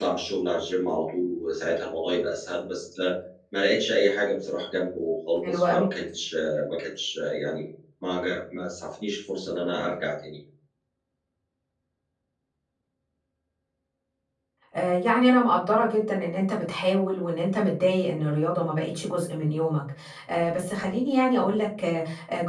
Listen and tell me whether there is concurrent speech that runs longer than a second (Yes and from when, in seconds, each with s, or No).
No